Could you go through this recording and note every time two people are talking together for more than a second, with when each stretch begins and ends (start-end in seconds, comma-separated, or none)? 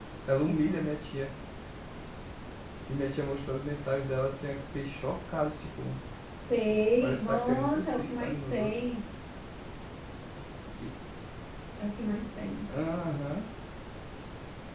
7.0-8.8